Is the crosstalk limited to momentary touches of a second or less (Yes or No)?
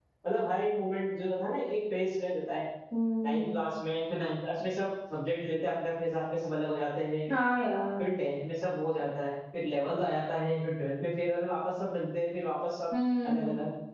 Yes